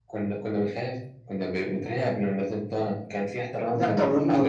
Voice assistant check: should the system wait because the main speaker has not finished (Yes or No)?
No